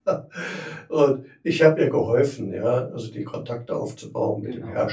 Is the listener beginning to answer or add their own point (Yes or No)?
No